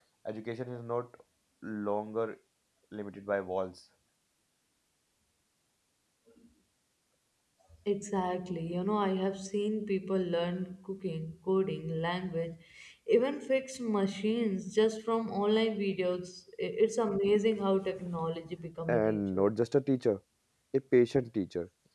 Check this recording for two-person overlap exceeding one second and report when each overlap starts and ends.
none

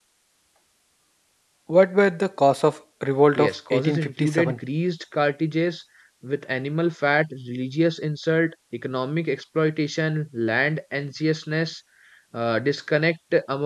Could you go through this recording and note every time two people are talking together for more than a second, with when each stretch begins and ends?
3.4-4.6

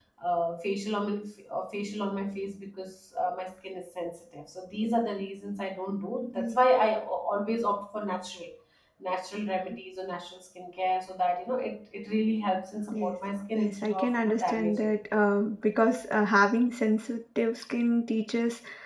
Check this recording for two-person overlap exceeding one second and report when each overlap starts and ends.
13.6-14.9

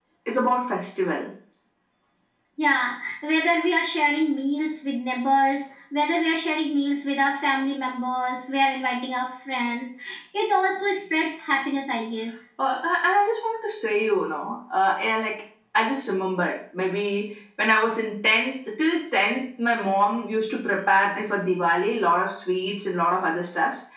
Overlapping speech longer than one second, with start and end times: none

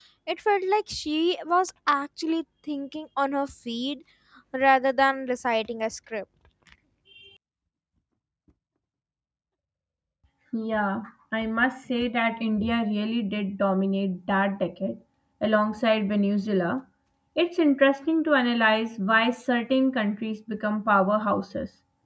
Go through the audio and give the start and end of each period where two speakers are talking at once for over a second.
none

